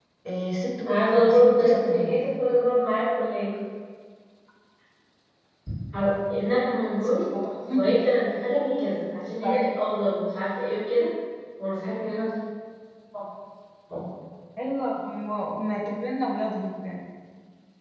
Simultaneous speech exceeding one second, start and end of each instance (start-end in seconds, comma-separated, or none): 0.9-2.2